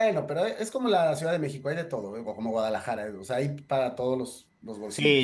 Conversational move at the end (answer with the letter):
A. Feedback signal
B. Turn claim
B